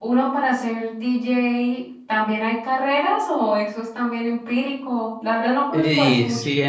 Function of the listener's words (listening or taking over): taking over